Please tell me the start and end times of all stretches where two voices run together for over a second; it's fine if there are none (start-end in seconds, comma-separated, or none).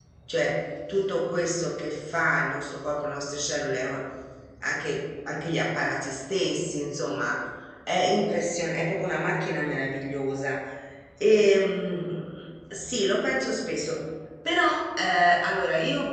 none